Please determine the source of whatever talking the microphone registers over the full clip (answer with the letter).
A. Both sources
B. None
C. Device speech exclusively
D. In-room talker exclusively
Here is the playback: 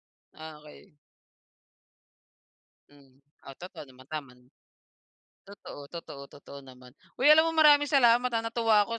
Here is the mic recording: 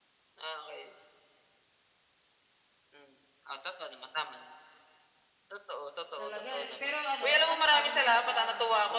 A